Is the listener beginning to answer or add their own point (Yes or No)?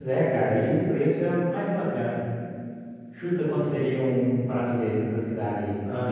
Yes